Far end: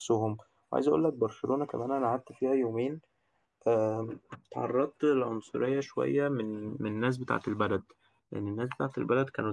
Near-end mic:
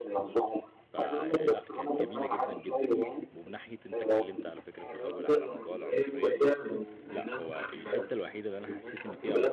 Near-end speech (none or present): present